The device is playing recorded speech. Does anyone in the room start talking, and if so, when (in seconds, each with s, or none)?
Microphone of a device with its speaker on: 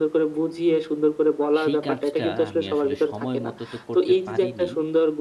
1.6 s